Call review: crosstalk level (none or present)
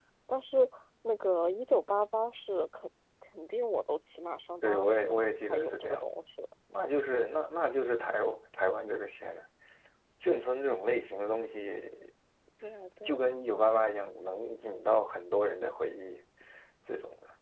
present